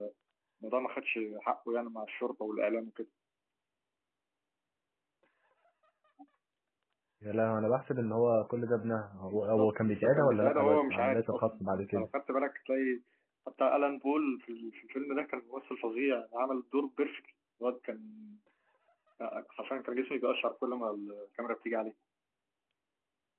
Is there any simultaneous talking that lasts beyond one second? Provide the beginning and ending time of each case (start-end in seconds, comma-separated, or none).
9.3-12.1